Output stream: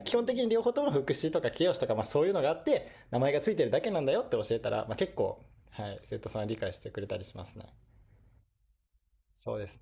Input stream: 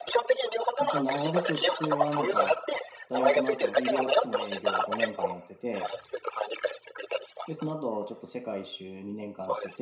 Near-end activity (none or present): present